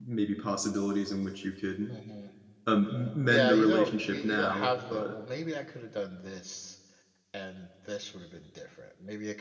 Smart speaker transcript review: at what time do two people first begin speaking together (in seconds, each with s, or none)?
3.3 s